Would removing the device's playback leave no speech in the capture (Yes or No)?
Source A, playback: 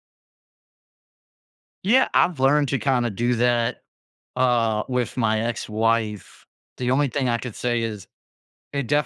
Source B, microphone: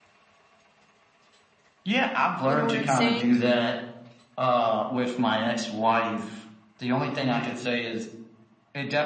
No